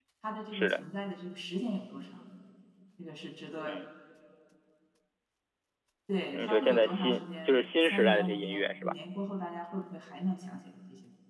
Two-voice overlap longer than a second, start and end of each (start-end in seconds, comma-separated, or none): 6.3-8.9